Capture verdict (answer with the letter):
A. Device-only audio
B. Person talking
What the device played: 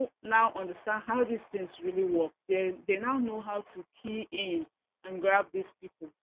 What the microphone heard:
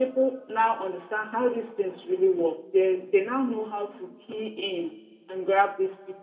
A